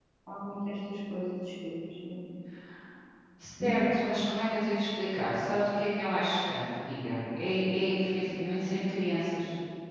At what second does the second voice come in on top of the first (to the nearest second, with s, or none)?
none